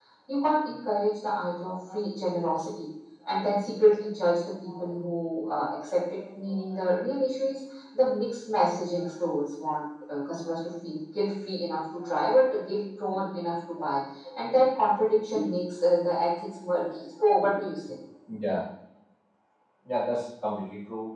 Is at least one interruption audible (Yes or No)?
No